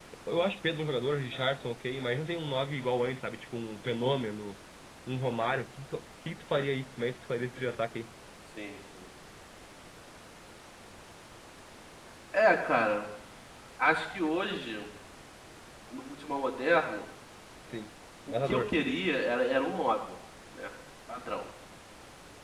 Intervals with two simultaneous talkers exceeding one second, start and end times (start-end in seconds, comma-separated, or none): none